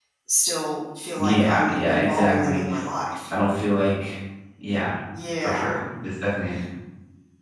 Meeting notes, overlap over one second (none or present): present